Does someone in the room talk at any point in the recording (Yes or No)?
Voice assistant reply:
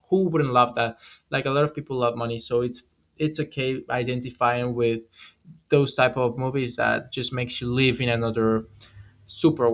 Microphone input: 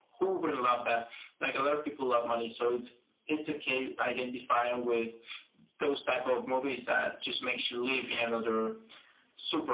No